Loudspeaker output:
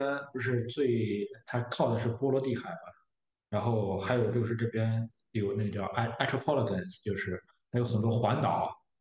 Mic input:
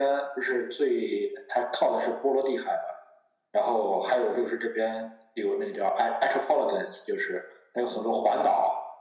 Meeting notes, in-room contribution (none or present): none